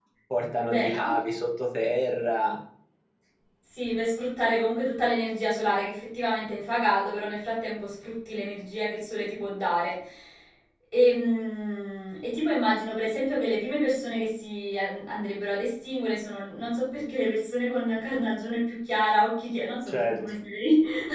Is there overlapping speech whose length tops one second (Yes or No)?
No